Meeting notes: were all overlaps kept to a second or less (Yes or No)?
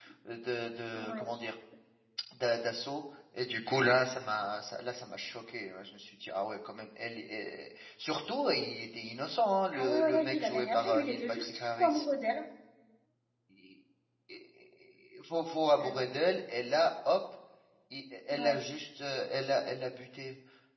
No